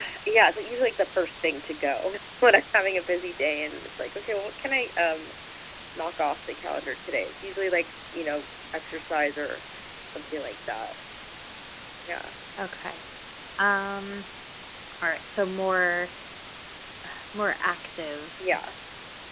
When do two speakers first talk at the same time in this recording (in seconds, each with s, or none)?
none